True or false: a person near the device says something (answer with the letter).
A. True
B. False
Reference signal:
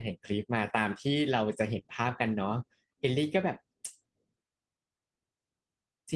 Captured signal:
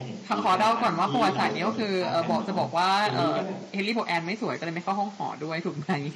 A